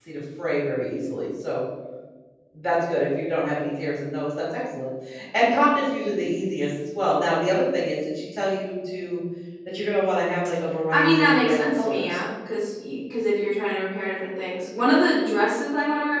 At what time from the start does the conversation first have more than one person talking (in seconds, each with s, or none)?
10.9 s